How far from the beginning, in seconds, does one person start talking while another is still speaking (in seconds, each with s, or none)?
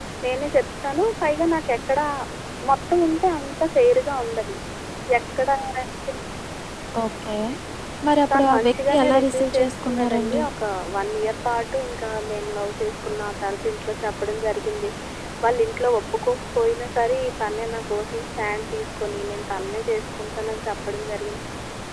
8.3 s